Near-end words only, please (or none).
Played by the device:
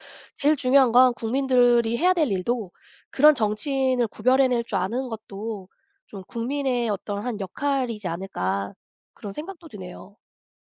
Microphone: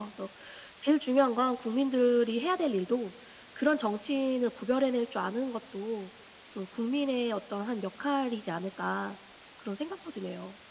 none